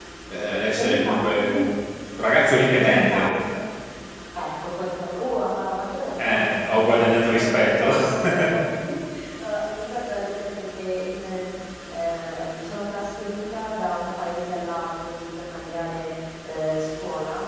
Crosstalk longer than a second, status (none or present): present